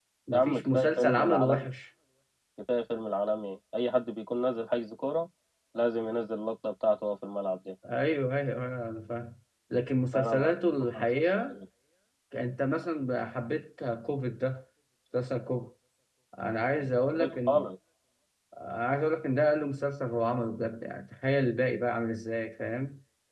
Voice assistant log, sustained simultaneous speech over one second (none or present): present